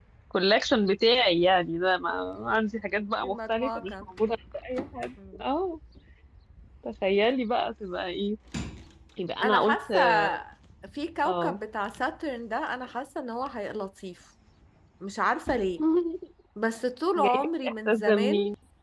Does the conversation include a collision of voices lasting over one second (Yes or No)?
Yes